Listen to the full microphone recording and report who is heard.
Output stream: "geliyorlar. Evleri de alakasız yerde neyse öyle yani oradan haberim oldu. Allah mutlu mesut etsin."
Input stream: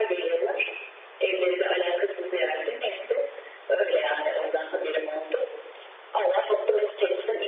echo only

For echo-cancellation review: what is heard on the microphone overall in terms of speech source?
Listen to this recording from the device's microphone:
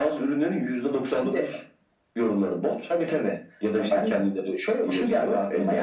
echo only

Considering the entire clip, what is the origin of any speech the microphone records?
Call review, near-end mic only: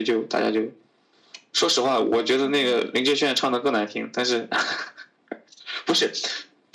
both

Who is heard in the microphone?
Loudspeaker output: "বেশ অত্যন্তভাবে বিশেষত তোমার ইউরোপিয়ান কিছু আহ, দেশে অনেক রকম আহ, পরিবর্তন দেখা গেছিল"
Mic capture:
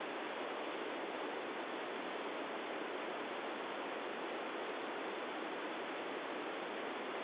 neither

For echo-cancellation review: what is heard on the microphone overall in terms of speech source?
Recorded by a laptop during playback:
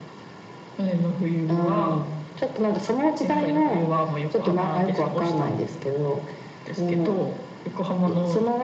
echo only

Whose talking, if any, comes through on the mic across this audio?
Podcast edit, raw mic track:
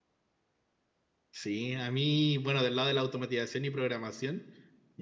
user only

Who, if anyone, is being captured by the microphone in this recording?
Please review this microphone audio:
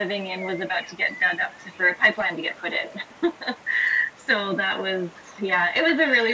echo only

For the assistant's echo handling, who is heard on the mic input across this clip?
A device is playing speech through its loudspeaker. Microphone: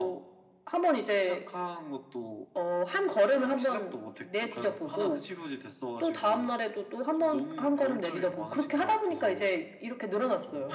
echo only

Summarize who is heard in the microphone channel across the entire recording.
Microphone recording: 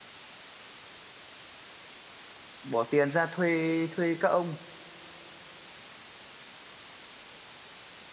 user only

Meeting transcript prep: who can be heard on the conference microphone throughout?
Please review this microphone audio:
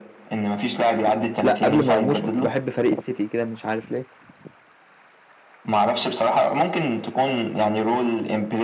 both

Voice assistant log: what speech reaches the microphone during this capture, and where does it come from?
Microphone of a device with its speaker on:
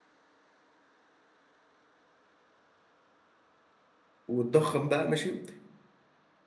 user only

